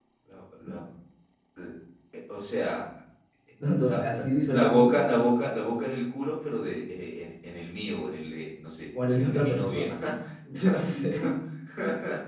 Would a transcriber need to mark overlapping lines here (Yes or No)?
Yes